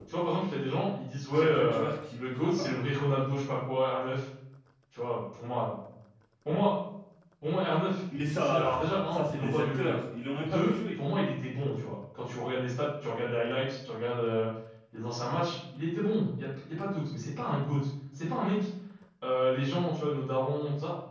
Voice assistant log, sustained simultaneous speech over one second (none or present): present